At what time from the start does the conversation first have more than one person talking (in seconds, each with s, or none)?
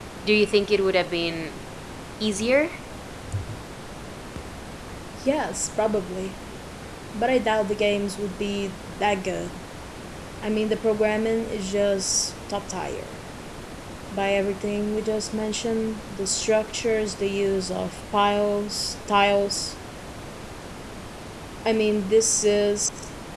none